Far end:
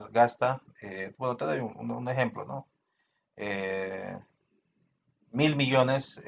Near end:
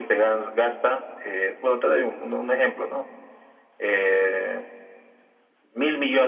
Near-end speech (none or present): none